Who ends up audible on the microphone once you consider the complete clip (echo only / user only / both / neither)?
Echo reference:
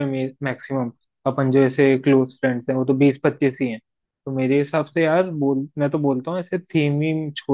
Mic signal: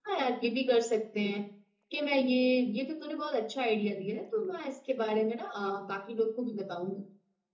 user only